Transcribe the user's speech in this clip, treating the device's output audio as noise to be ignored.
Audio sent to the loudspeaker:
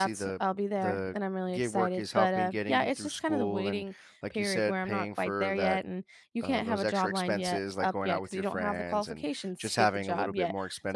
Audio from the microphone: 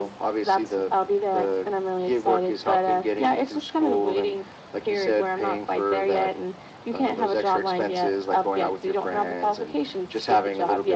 none

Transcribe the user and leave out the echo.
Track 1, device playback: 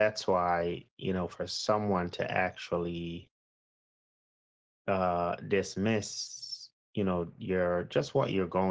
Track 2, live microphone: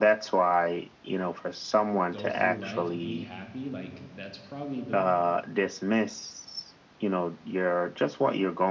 go through life, be happy, like, that's probably the

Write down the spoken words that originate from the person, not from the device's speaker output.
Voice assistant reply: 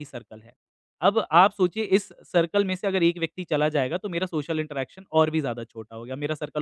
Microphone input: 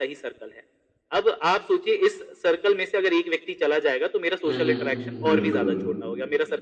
हुँ, हुँ, हुँ, हुँ। बिल्कुल,

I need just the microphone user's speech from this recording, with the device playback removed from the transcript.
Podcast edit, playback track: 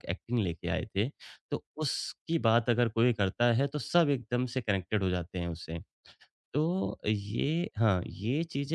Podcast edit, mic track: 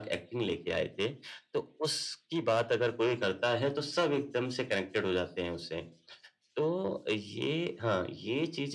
none

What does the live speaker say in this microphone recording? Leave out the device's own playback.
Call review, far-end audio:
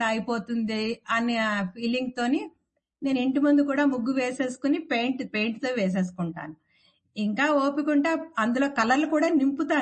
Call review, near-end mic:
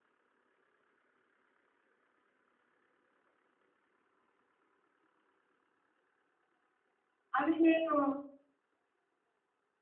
అవి నేను

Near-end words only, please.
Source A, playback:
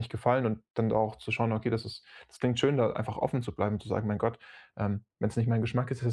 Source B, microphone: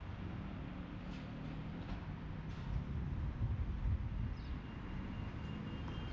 none

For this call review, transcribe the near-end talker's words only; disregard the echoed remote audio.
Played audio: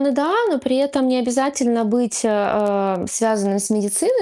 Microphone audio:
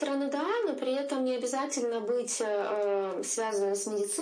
none

